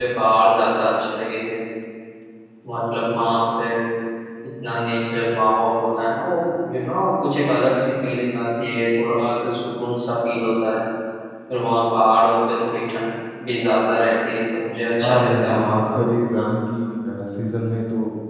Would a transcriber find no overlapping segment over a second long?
No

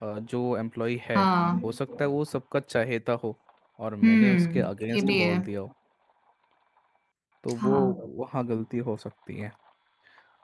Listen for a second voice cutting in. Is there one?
Yes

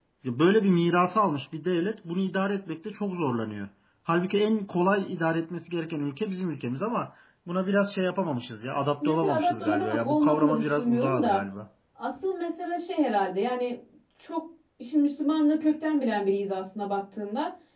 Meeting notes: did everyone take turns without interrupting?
No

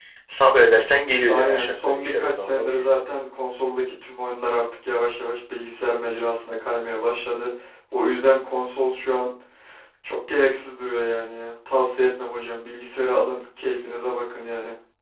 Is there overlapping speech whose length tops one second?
Yes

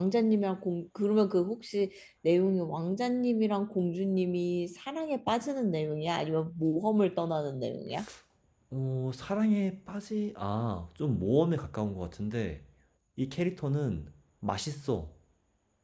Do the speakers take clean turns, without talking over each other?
Yes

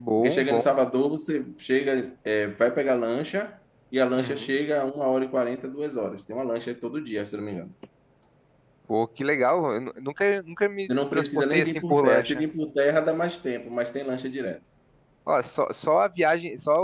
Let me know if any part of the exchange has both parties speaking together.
Yes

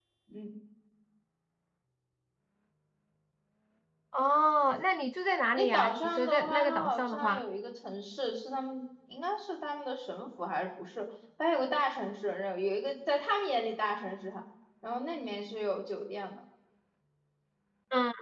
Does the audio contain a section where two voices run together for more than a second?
Yes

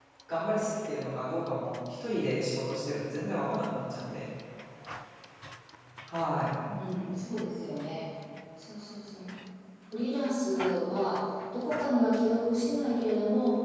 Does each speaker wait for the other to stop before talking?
Yes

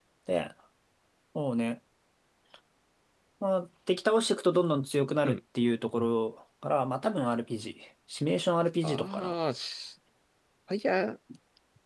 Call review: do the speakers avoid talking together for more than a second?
Yes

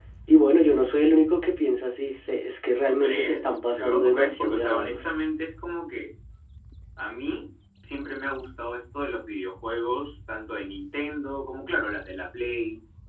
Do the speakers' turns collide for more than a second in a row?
Yes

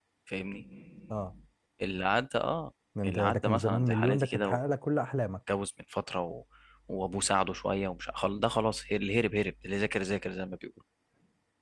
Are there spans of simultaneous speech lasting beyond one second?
Yes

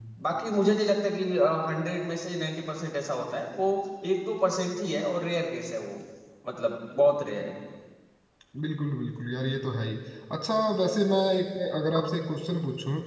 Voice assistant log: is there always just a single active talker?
Yes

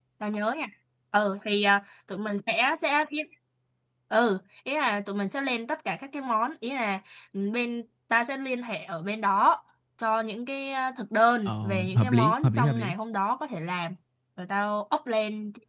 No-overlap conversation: No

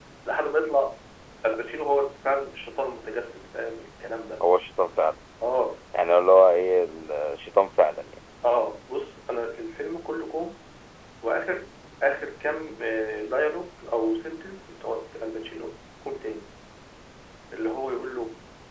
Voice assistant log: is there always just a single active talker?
Yes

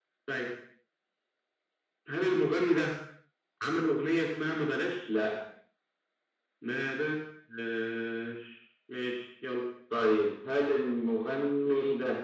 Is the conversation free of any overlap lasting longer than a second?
Yes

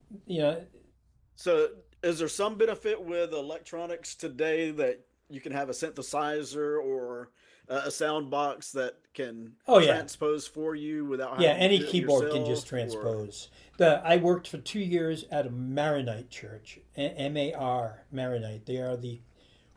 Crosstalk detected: Yes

